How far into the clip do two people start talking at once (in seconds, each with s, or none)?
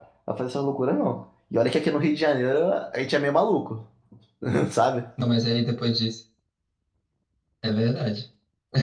none